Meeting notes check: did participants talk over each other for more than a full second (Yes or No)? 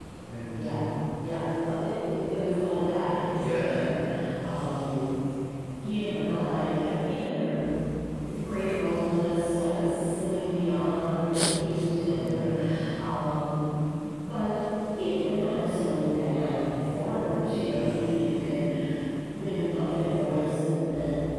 No